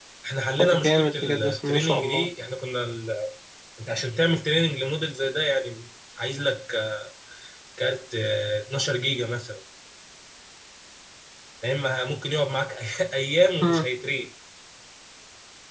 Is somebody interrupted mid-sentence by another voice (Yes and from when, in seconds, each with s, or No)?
Yes, from 0.6 s